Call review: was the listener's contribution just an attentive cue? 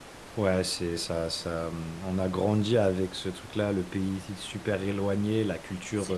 Yes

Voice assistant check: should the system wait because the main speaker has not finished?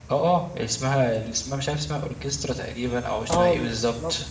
No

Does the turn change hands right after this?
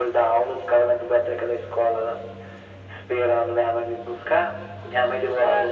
No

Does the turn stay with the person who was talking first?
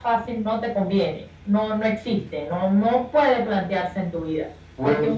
Yes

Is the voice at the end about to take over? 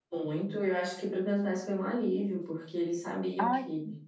No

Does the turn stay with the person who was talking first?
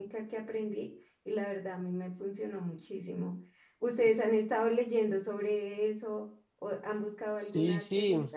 No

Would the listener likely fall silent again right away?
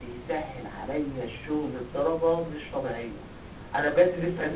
Yes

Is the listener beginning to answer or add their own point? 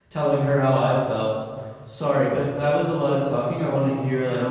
Yes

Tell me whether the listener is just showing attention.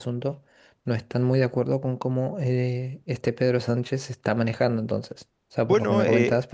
Yes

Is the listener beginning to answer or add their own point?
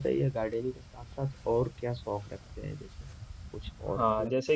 Yes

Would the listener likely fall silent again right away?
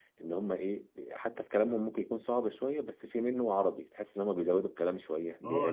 No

